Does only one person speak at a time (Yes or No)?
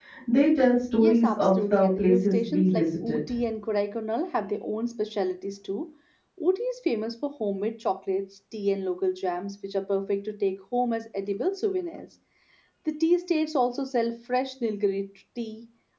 No